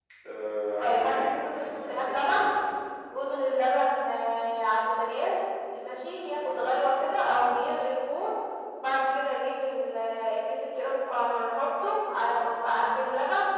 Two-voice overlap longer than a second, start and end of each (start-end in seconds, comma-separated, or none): 0.8-2.5